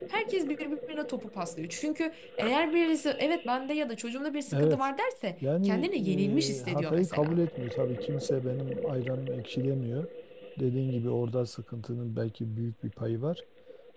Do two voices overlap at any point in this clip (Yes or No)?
Yes